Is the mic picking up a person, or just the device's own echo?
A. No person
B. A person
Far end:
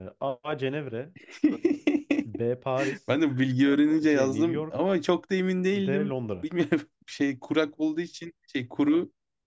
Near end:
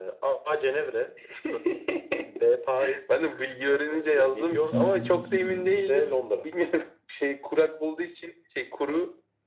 B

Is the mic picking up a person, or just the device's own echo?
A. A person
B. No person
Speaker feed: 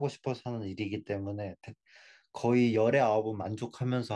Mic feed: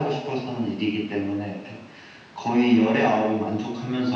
B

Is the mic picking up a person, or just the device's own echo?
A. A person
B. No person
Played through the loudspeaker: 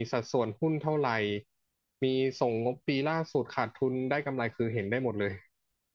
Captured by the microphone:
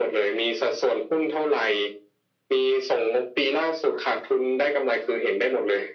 B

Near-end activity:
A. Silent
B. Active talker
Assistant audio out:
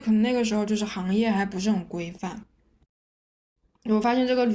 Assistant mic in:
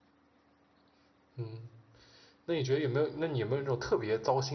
B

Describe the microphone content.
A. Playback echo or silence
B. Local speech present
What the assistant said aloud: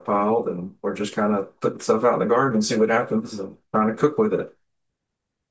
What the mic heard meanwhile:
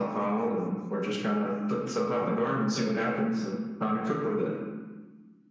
A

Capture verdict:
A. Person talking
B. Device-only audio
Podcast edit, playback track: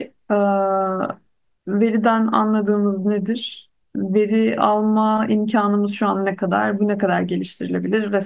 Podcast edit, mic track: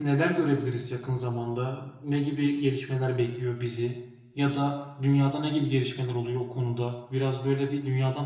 A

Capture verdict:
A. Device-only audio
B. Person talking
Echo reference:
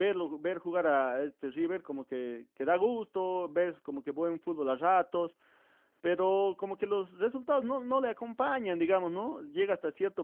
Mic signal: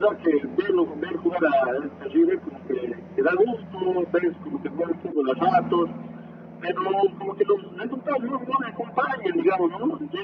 A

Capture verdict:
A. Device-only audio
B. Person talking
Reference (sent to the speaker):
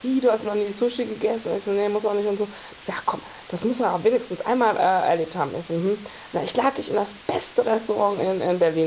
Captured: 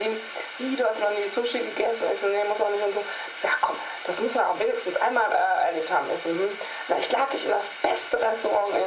A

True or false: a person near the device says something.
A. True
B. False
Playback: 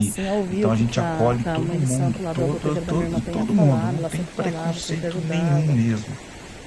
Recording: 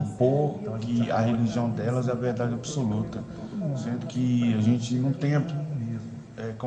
A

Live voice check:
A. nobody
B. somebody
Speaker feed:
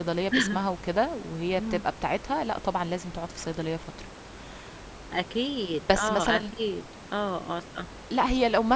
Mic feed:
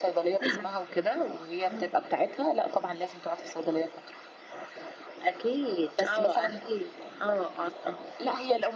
A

